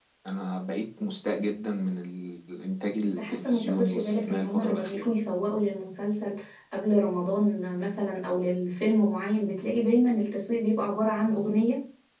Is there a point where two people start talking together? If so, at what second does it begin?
3.0 s

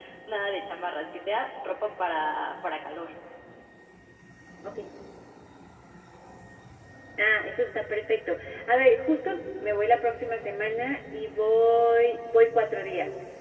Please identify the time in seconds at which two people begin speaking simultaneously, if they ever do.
none

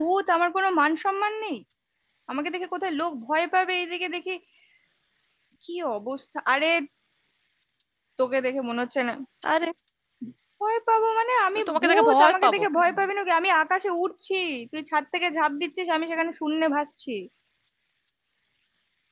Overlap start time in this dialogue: 11.6 s

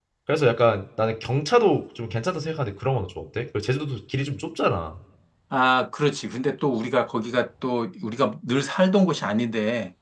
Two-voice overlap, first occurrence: none

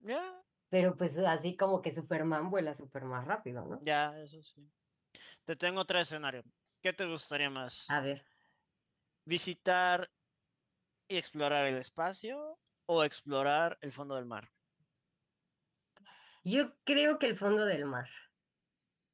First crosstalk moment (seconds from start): none

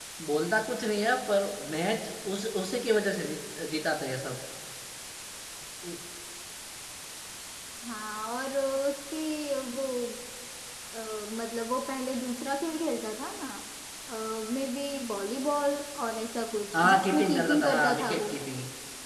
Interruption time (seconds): 16.7 s

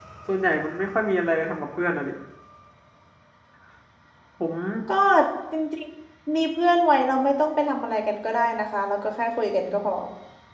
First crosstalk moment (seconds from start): none

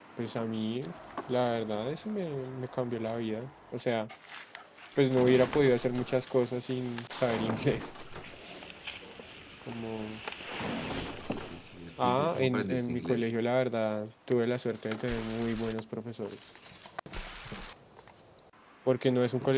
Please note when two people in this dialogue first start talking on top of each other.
12.0 s

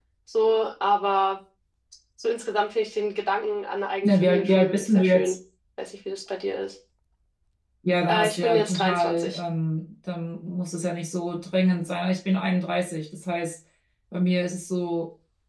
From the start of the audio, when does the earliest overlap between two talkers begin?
4.0 s

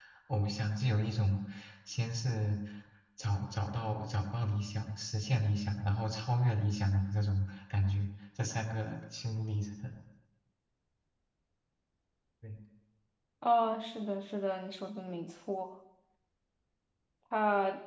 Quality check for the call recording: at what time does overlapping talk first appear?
none

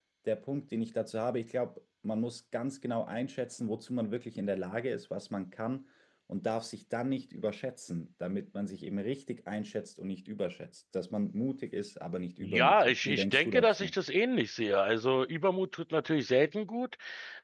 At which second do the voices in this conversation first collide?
12.4 s

